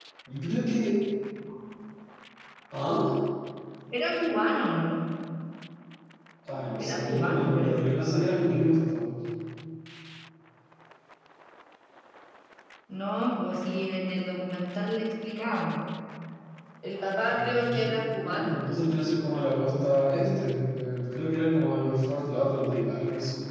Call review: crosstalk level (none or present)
present